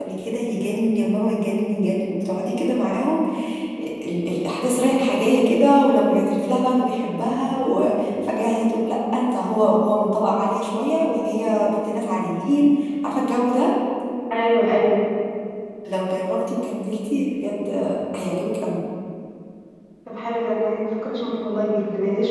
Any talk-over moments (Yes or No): No